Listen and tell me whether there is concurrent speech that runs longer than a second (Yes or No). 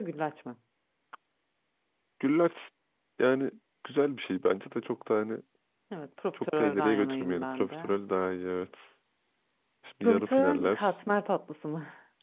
Yes